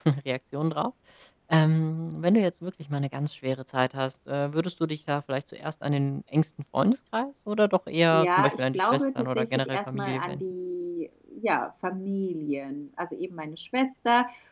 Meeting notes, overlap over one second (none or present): present